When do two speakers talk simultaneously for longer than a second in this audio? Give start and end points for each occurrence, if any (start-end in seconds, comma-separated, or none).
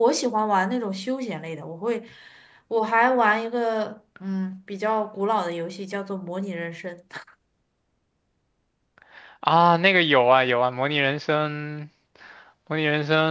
none